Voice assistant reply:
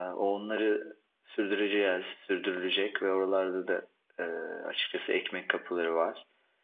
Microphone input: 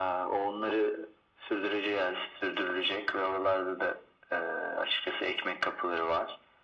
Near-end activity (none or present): none